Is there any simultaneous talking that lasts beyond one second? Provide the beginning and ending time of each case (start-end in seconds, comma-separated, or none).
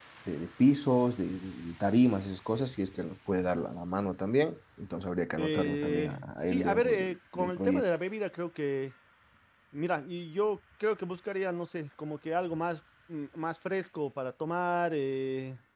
5.4-7.9